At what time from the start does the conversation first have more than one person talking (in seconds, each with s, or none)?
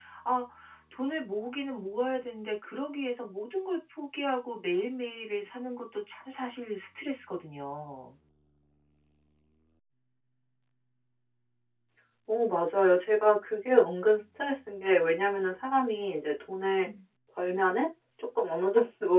none